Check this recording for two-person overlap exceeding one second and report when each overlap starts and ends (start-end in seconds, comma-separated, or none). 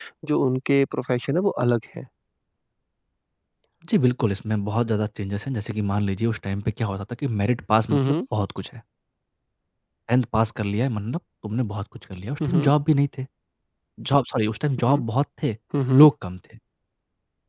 none